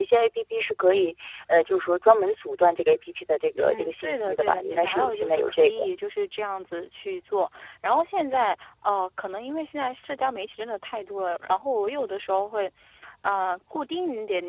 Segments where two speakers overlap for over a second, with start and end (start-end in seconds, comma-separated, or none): 3.5-5.7